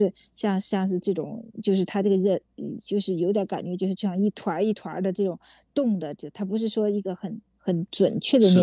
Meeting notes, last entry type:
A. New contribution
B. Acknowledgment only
B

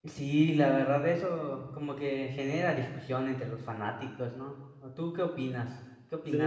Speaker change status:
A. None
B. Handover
B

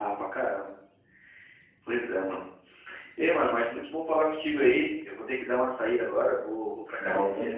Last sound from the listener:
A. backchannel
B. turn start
A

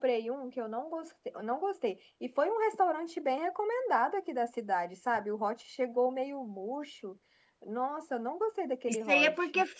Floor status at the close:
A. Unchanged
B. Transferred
B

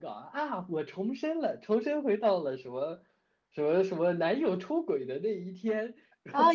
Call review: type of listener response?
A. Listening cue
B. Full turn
B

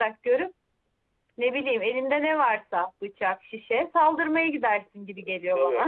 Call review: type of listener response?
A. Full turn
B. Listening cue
A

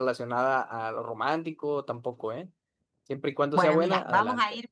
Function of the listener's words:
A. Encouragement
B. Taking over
B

